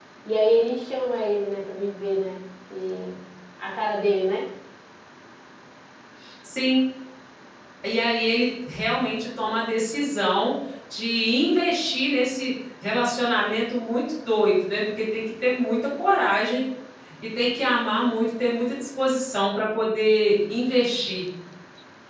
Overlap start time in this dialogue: none

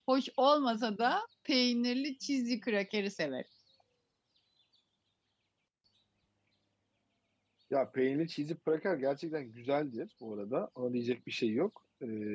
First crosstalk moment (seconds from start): none

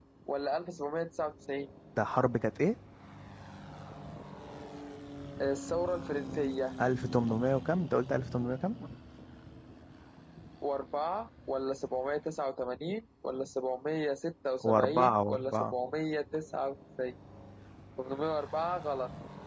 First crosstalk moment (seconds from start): 14.6 s

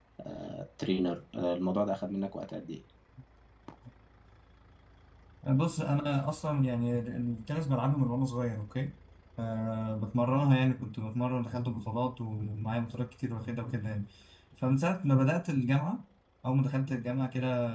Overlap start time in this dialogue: none

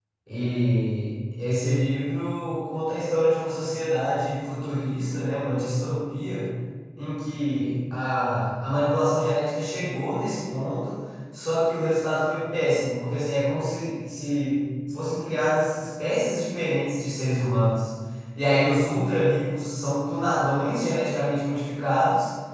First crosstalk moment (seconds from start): none

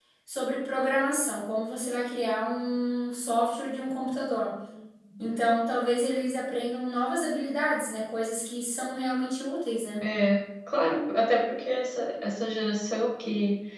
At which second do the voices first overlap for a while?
none

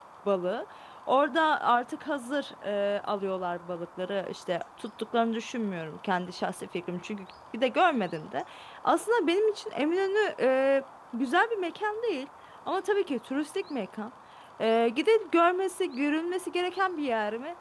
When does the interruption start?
none

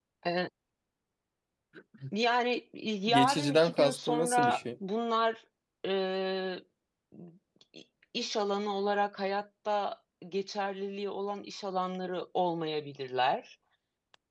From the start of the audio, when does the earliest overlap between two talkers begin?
3.1 s

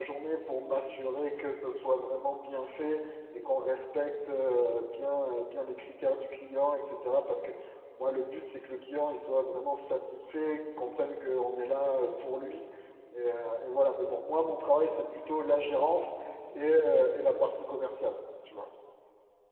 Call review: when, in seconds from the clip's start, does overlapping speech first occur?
none

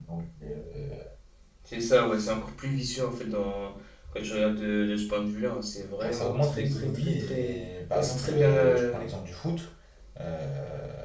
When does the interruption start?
6.0 s

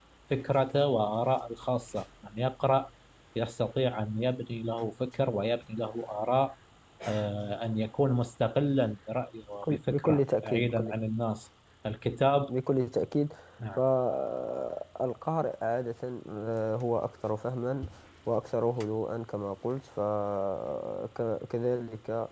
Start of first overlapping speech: 9.6 s

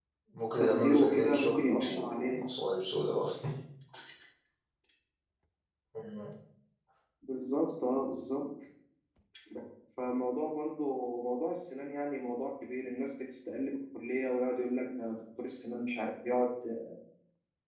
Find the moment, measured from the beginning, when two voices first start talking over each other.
0.6 s

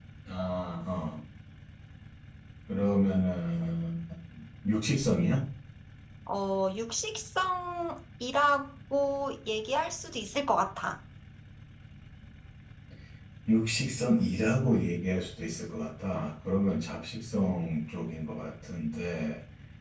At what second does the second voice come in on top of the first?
none

